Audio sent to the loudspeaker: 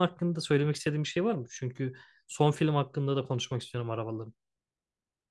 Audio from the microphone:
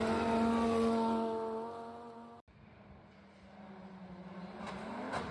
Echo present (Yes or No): No